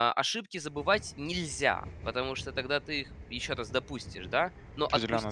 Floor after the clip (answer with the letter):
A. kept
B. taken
A